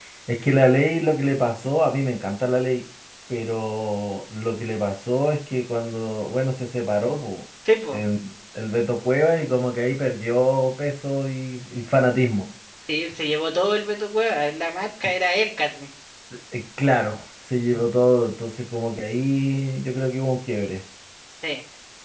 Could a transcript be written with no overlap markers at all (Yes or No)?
Yes